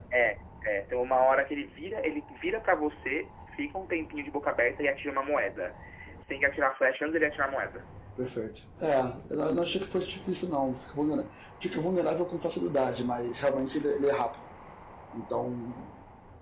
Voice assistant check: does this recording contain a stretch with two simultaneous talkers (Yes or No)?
No